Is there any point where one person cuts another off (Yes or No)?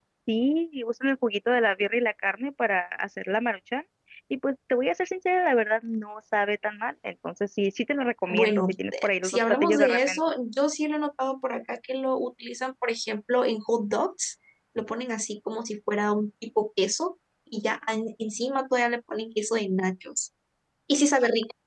Yes